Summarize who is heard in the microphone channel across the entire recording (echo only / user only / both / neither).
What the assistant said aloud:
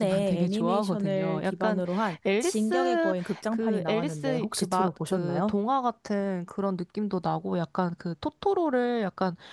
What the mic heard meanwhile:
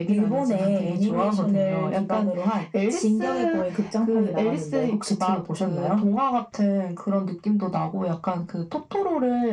echo only